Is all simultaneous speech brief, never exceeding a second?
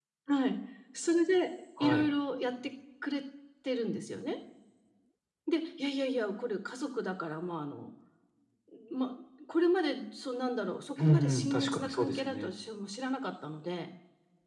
No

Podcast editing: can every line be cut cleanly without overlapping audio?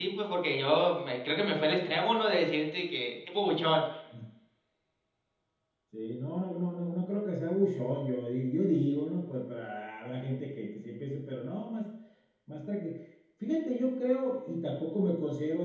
Yes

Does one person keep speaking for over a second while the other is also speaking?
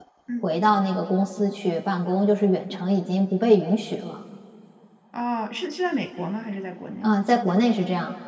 No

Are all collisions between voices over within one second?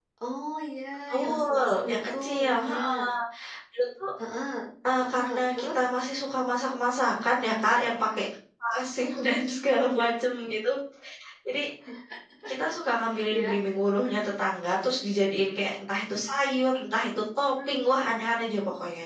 No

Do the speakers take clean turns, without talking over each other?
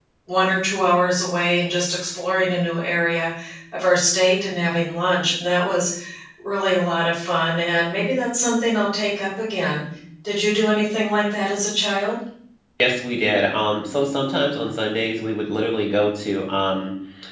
Yes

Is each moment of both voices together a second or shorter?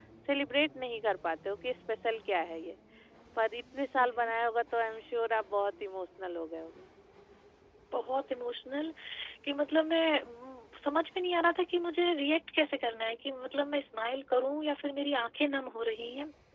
Yes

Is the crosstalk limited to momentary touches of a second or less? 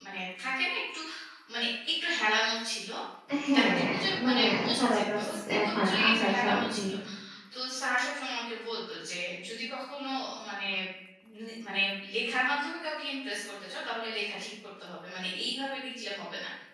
No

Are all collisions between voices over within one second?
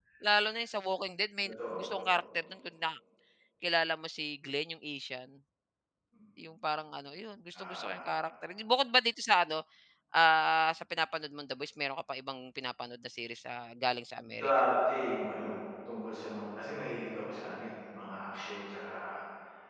Yes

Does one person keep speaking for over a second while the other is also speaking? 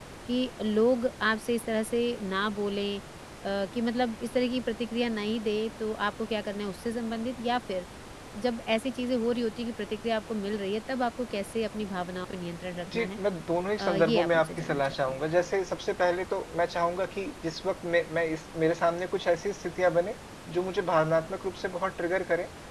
Yes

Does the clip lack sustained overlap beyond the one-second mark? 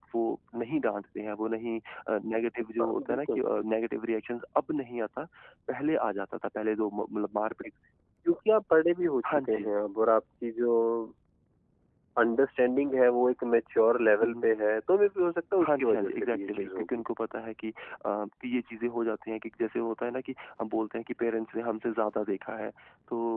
No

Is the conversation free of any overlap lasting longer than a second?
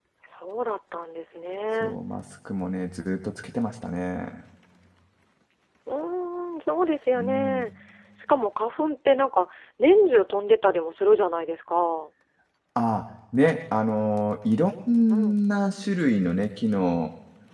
Yes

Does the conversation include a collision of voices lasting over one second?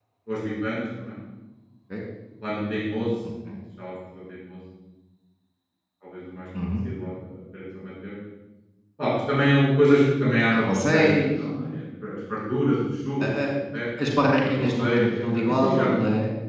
Yes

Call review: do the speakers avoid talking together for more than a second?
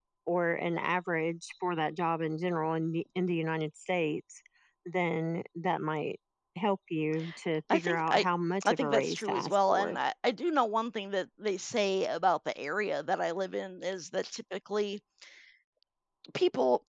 No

